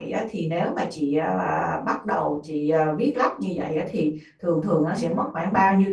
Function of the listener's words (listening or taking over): listening